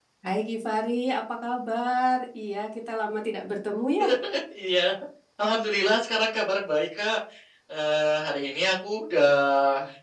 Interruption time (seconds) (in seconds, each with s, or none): none